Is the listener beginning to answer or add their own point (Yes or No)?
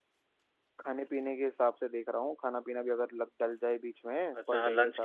Yes